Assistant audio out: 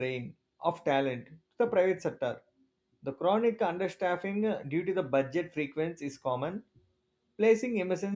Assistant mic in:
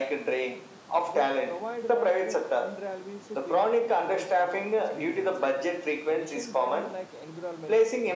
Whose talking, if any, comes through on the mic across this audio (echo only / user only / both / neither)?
both